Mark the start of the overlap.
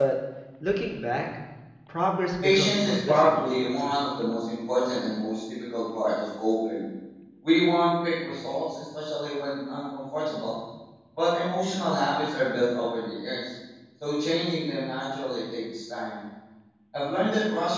2.4 s

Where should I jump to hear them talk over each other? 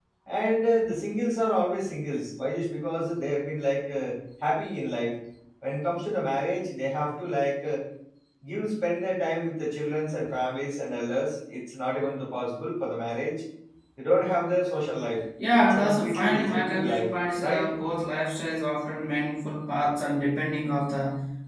15.6 s

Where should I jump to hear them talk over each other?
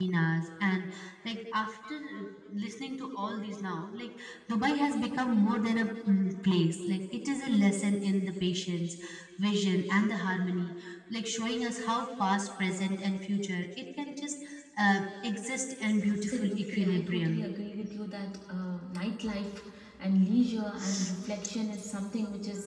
16.0 s

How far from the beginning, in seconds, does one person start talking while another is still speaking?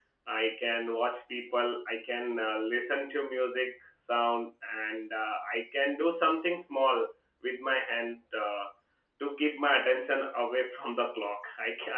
none

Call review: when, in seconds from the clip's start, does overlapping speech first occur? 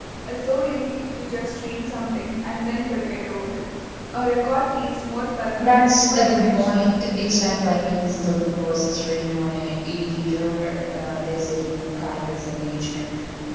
5.6 s

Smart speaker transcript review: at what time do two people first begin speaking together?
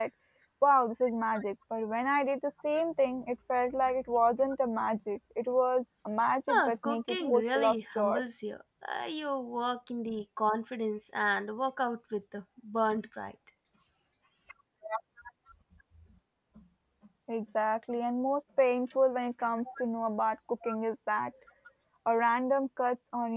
6.5 s

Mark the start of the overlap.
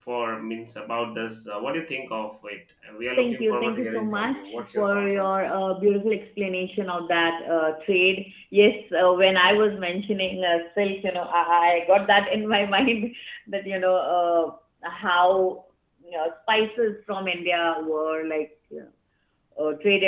3.2 s

